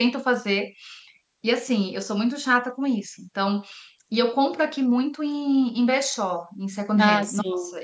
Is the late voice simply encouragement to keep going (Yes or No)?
Yes